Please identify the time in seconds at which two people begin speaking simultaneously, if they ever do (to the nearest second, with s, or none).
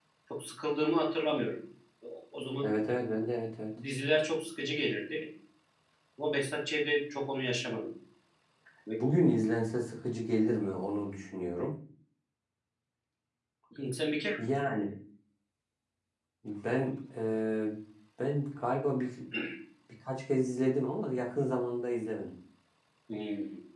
none